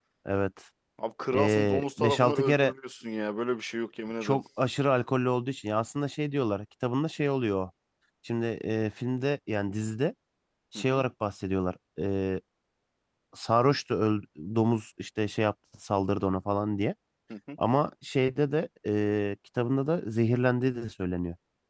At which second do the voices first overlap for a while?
1 s

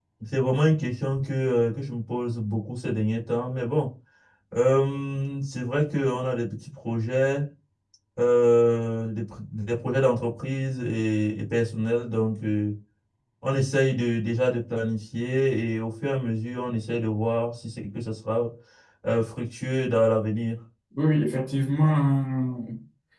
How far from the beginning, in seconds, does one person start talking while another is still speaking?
none

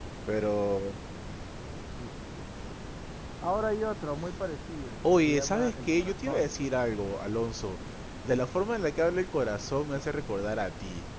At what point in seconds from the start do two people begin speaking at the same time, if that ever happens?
5 s

